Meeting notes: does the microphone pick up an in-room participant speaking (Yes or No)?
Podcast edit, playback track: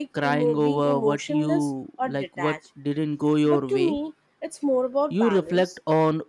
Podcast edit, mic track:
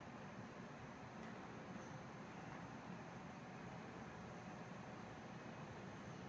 No